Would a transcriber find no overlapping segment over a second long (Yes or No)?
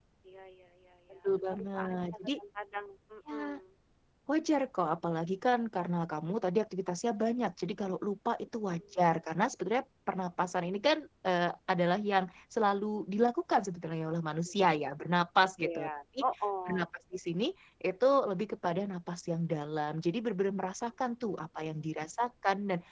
No